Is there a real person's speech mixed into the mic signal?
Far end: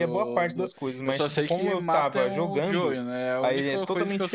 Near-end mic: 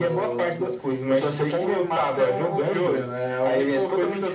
No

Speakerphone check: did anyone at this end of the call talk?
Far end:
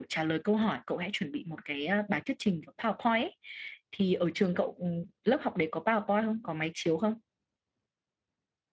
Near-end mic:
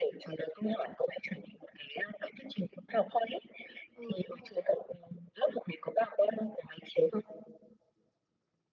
Yes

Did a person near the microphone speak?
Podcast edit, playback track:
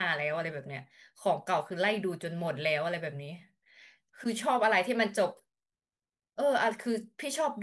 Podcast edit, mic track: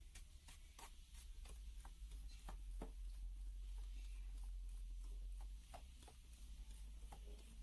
No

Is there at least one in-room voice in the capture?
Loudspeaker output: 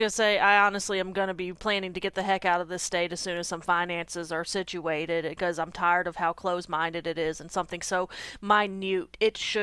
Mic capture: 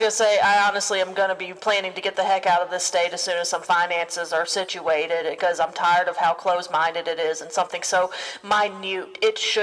No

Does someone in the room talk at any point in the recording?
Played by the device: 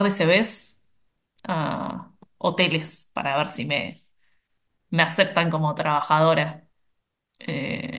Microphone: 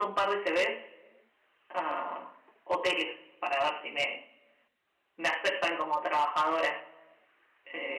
No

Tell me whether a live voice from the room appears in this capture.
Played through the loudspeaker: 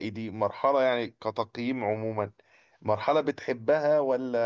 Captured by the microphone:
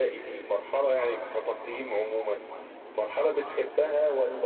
No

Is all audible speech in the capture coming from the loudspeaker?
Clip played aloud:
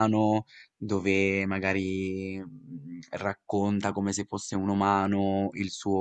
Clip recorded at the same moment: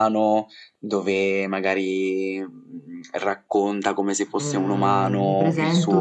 No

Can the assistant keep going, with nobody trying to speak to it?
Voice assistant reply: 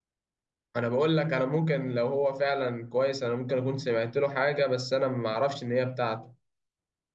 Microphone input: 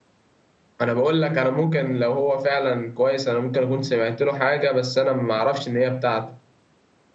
Yes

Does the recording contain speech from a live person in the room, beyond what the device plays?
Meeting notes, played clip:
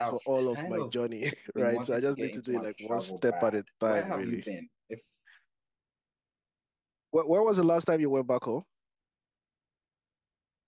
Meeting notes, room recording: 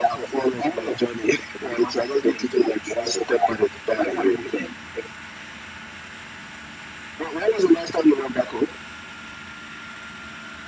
No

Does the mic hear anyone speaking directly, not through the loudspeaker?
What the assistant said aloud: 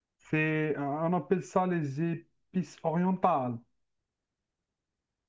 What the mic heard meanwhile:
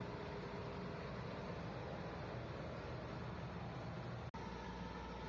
No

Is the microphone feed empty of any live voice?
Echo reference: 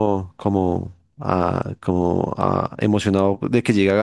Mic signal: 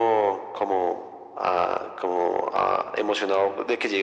Yes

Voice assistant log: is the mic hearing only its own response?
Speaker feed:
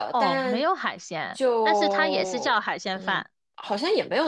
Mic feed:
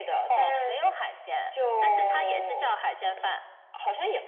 Yes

